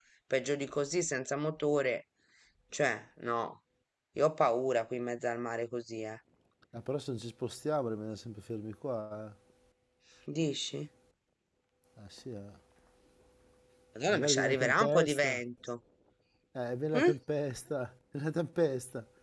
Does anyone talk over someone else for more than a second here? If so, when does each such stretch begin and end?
14.1-15.4

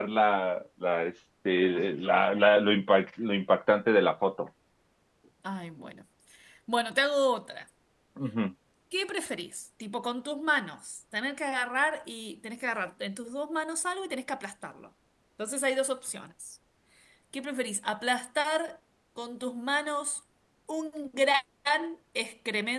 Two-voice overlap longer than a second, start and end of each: none

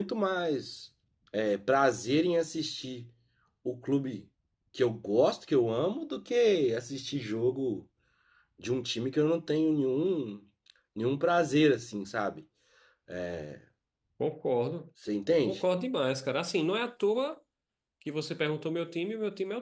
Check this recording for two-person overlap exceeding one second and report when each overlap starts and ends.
none

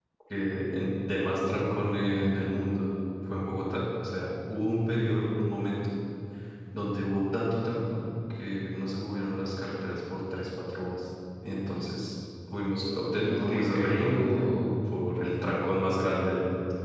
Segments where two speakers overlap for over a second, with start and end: 13.2-14.5

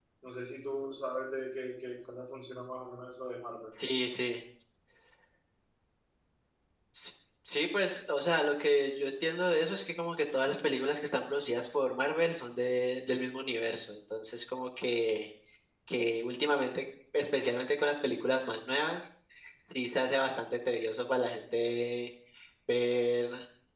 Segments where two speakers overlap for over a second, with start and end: none

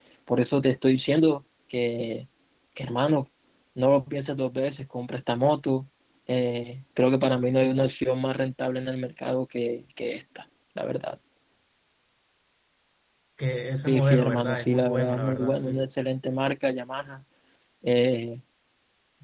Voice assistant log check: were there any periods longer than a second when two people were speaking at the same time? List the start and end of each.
13.9-15.8

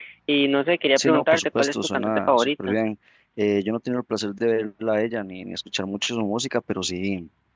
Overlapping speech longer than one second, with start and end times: 1.0-2.8

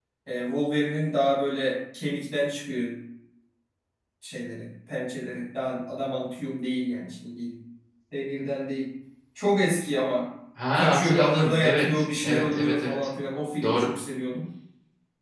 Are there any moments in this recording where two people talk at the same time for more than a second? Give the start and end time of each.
10.7-12.9

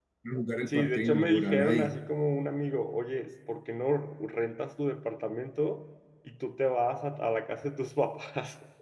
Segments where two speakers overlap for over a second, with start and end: 0.7-1.9

